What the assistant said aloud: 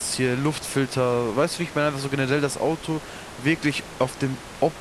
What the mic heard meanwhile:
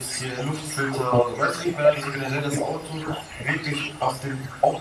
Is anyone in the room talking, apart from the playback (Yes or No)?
No